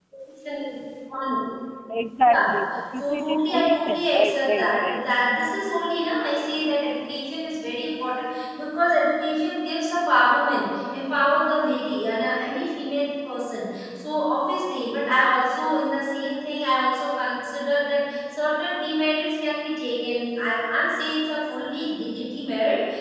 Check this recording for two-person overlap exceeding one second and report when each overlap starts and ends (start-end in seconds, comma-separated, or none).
3.0-5.0